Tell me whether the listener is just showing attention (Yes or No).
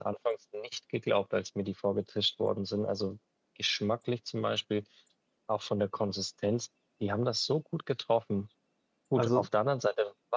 Yes